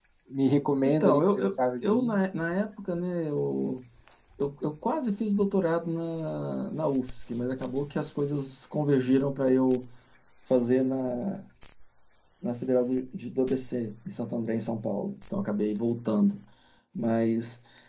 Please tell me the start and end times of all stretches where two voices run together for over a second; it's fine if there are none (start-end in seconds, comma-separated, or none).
0.8-2.2